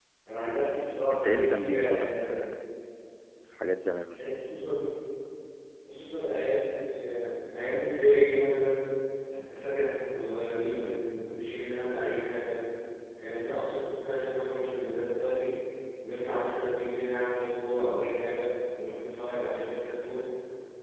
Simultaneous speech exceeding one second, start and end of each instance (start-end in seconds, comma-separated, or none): 1.1-2.3